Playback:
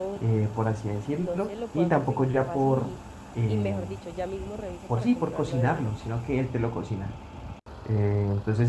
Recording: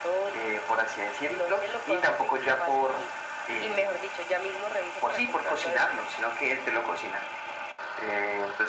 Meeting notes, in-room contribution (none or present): none